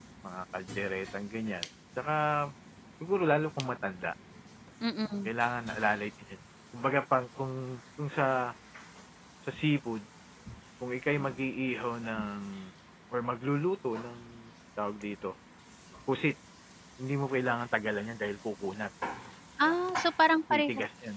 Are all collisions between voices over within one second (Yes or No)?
Yes